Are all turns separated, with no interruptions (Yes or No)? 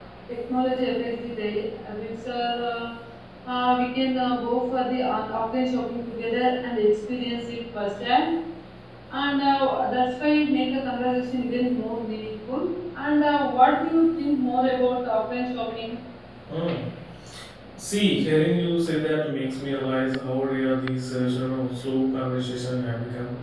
Yes